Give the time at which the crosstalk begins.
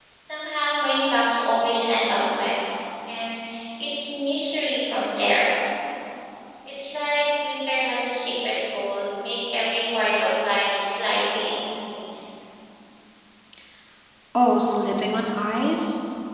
none

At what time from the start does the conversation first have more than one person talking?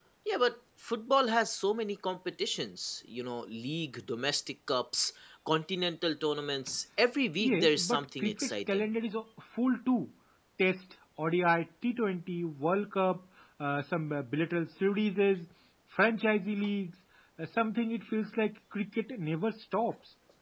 7.4 s

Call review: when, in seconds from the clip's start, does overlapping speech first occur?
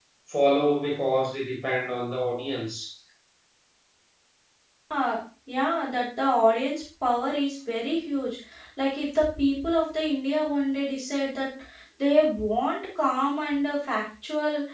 none

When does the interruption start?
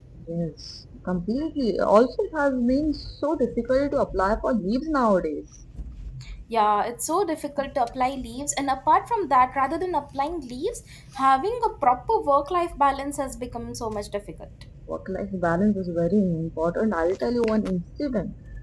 none

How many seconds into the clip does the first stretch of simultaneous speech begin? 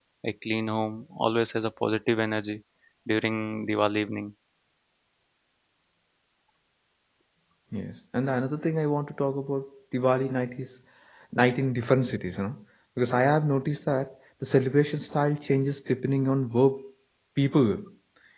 none

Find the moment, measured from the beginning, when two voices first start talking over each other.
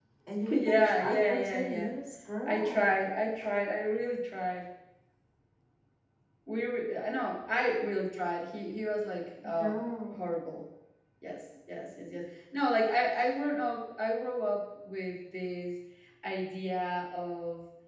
0.5 s

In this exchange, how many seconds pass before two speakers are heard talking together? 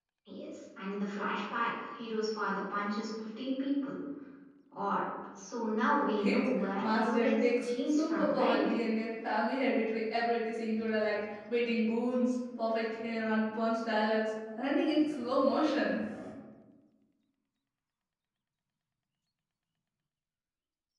6.2 s

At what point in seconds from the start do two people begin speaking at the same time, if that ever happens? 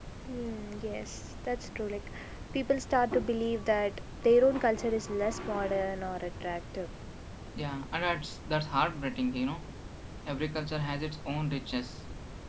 none

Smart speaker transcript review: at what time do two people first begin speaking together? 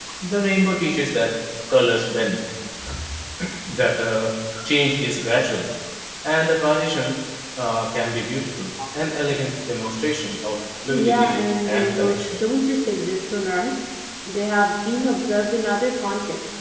10.9 s

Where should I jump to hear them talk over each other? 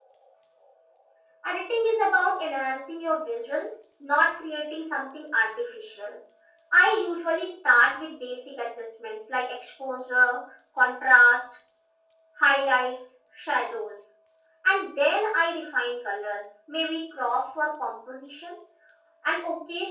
none

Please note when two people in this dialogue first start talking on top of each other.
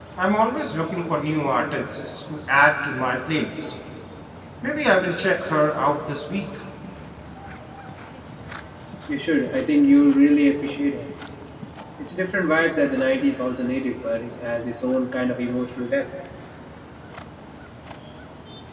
none

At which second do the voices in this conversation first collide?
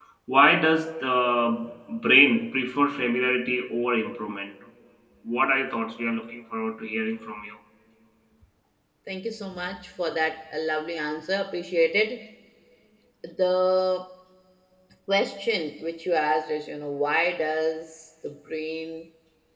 none

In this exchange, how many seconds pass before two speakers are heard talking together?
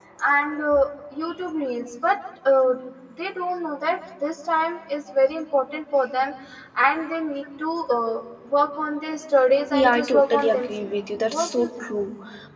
9.7 s

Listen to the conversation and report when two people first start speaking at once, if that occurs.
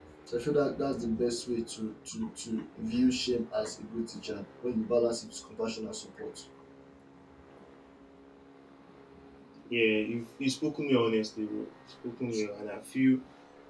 none

